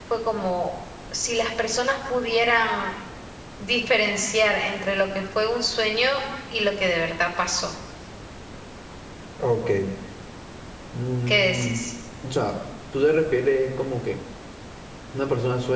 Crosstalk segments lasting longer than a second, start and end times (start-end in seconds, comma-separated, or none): none